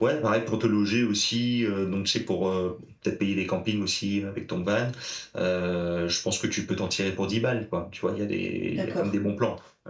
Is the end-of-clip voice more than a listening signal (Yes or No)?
No